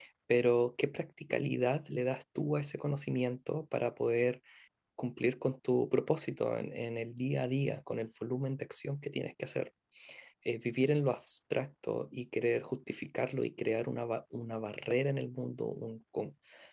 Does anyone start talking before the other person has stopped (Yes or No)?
No